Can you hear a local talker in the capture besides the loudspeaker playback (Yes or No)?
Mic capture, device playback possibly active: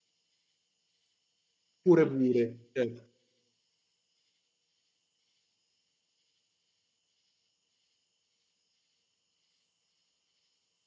Yes